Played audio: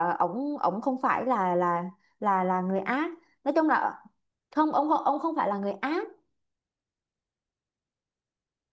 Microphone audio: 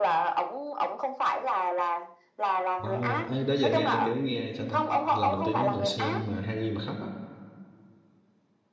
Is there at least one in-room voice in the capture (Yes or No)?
Yes